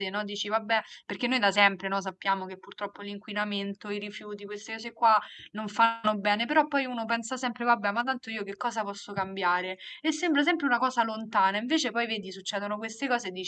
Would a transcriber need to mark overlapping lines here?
No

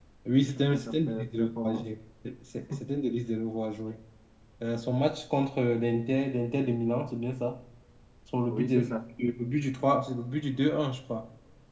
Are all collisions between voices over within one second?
No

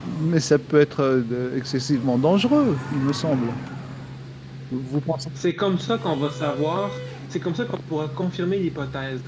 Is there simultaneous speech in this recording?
No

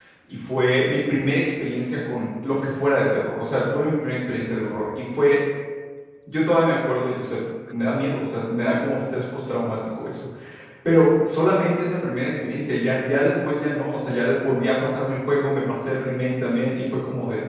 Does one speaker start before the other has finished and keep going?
No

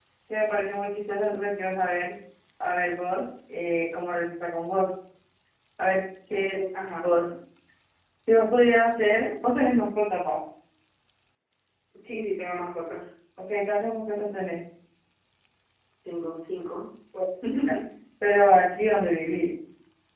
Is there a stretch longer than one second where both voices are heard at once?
No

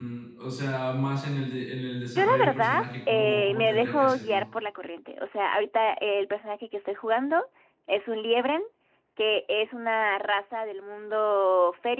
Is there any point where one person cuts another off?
Yes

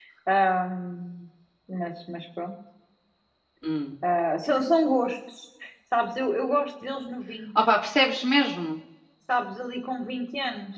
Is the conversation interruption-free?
Yes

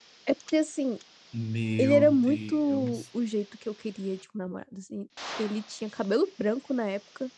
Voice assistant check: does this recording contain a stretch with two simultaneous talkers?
Yes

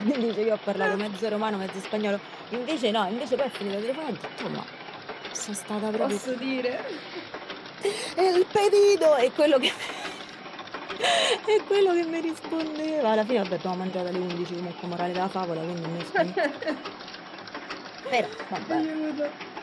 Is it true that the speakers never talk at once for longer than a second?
Yes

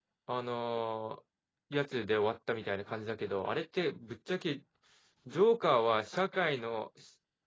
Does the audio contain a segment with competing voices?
No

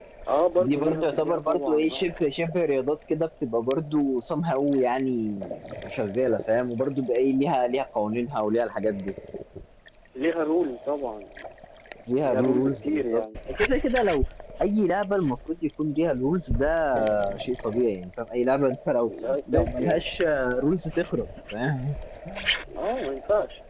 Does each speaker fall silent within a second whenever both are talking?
No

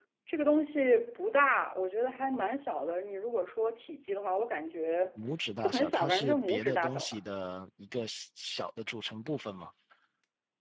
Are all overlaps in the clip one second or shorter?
No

